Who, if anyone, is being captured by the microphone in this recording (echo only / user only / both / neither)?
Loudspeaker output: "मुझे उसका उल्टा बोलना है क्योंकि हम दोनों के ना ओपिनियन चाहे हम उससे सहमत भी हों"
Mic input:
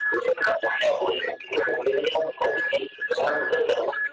echo only